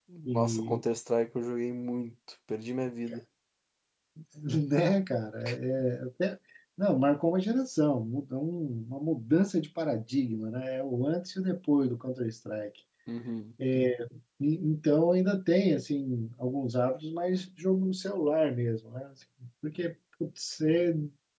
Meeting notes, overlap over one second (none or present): none